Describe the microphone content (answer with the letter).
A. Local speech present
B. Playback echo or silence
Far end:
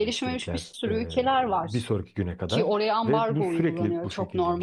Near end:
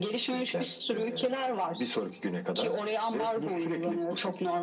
B